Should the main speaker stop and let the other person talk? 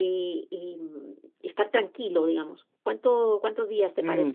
Yes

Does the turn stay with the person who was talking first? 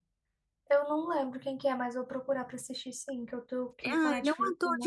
No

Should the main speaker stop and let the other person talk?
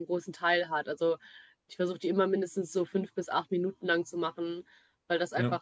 No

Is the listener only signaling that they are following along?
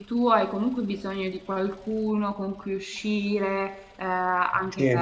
Yes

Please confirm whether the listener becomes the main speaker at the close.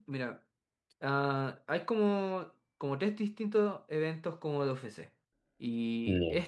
No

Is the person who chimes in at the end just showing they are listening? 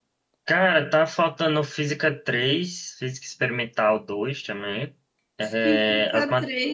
No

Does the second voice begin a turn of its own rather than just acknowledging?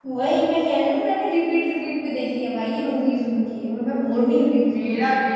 Yes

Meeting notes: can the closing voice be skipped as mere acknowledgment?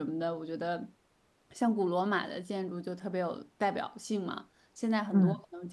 Yes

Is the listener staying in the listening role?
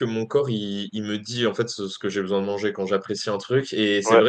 Yes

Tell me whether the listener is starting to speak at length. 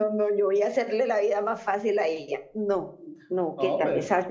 No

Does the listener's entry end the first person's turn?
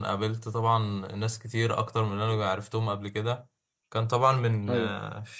No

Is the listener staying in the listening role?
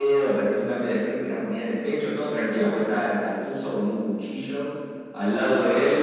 No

